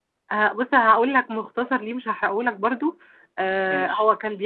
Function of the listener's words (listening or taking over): listening